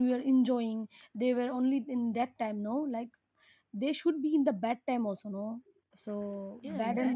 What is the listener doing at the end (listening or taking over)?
taking over